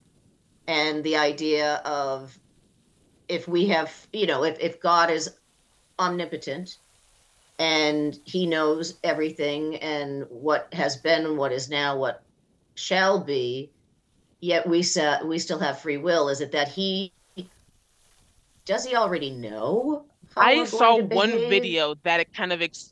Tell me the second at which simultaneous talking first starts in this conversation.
20.4 s

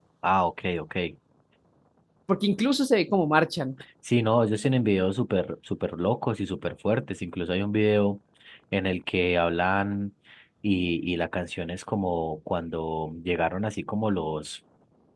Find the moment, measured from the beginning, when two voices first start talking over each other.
none

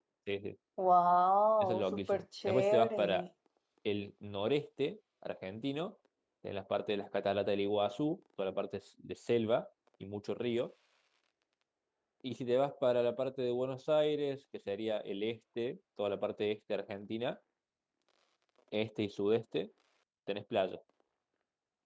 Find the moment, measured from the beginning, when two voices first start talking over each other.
1.6 s

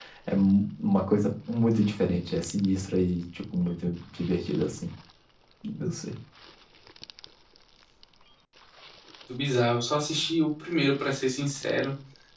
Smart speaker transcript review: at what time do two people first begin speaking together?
none

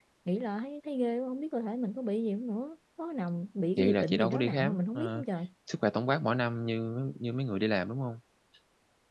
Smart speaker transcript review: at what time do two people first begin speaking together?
3.8 s

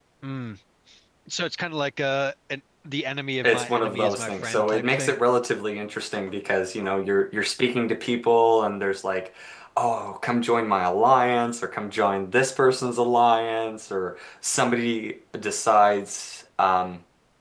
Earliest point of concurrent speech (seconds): 3.4 s

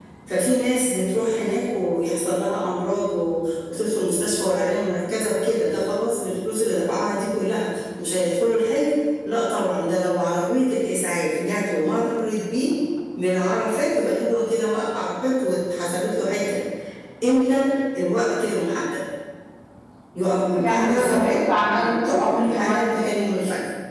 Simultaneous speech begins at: 20.6 s

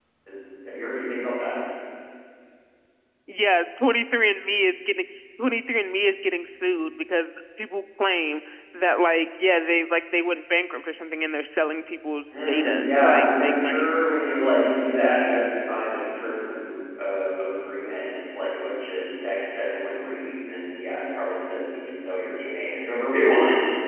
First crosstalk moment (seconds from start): 12.3 s

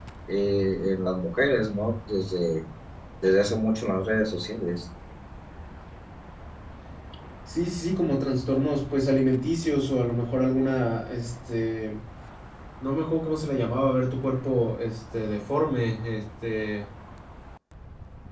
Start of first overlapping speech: none

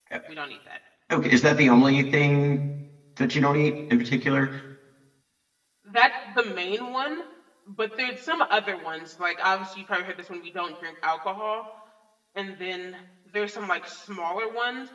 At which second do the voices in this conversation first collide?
none

